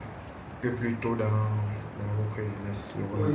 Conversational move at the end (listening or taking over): taking over